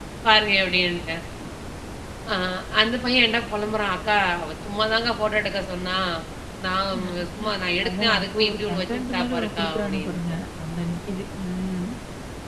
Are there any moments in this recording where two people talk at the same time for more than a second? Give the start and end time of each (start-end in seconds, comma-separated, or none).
7.9-10.2